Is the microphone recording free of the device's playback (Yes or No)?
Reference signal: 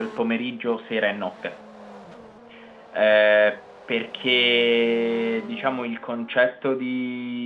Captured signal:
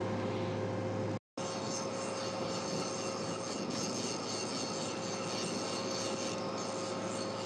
Yes